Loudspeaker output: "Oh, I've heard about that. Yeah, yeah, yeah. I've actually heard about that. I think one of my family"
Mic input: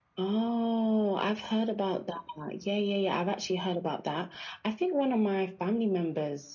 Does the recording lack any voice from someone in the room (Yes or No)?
Yes